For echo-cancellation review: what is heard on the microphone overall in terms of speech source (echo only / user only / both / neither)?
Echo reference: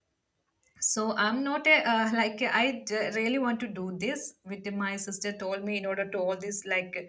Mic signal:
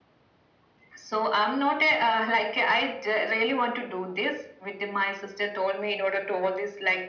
echo only